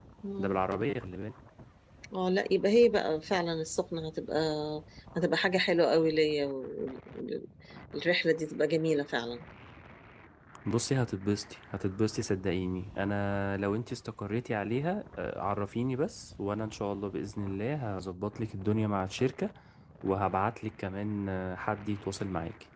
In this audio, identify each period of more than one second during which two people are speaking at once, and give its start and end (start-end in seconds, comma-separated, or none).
none